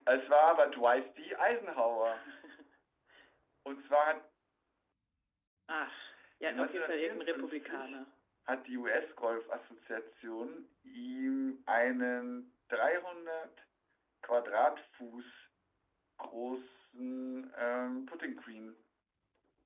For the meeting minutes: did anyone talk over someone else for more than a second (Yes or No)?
Yes